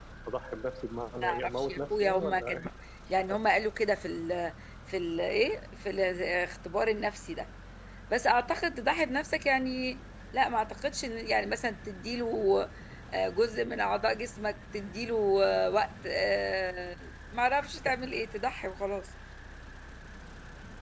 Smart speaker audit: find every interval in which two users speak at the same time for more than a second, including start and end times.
1.2-2.6

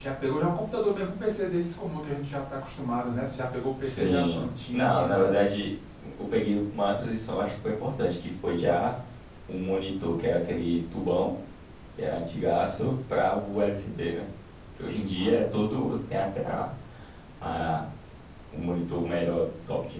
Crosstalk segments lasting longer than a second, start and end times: 3.8-5.3

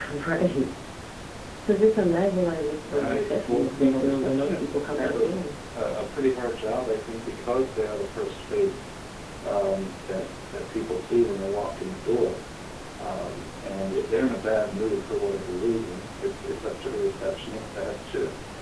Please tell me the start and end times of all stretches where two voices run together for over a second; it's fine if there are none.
2.9-5.4

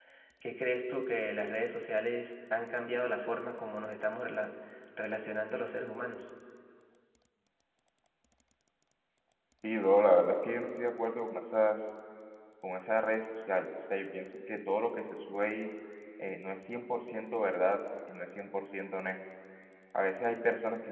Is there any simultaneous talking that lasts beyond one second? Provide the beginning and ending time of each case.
none

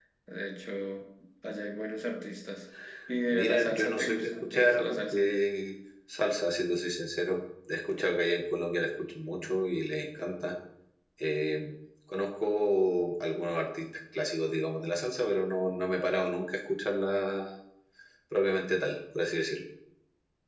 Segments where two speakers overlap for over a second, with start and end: 3.2-5.2

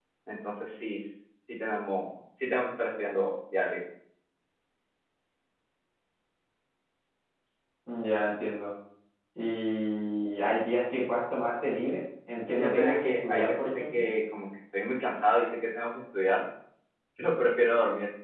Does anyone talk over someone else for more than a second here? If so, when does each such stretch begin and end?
12.6-14.1

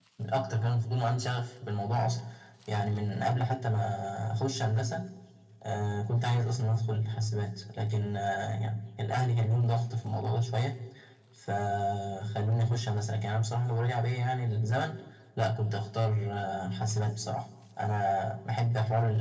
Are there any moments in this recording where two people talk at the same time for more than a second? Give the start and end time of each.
none

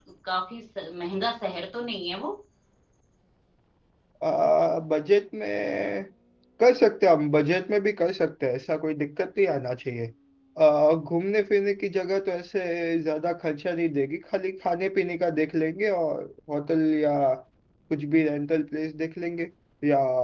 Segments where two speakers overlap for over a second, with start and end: none

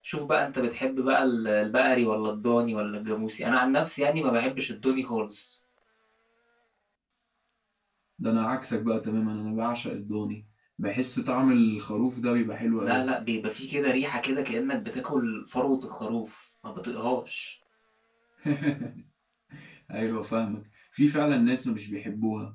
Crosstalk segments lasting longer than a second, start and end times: none

